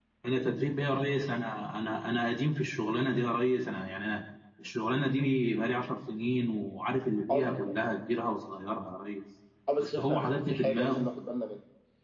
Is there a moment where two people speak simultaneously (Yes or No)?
Yes